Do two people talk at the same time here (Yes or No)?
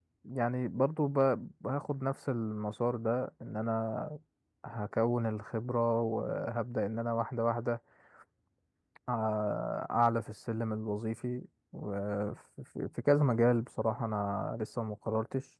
No